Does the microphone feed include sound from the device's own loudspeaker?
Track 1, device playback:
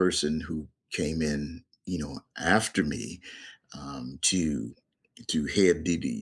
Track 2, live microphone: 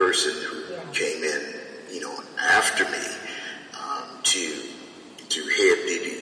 Yes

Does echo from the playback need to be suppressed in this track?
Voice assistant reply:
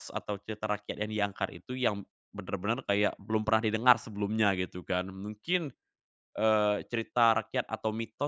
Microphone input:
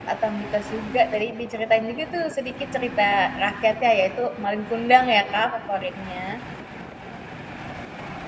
No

